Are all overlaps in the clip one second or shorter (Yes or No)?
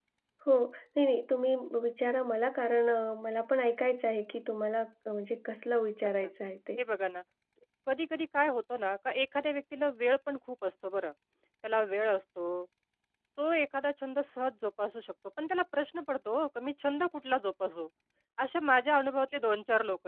Yes